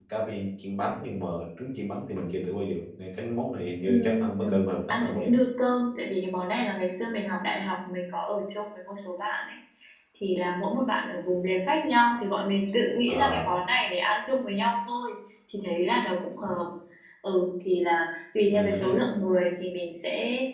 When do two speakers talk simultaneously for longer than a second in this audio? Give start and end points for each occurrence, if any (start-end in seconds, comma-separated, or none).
3.8-5.2